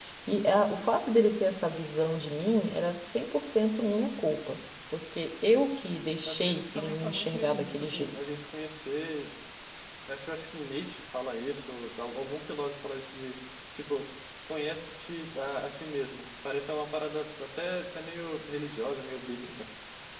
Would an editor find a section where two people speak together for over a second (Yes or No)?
Yes